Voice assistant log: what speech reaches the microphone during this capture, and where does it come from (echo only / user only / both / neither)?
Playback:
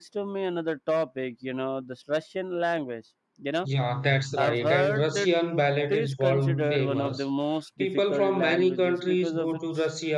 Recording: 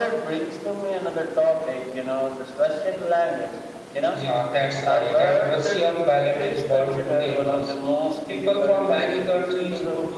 echo only